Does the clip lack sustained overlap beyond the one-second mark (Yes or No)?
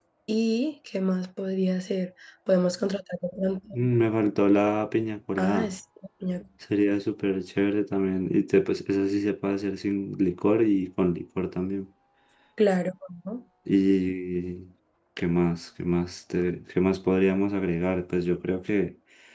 Yes